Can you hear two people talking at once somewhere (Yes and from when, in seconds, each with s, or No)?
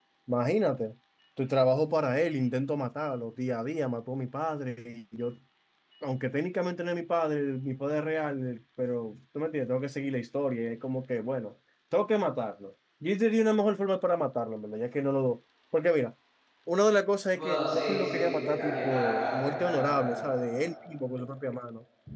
Yes, from 17.3 s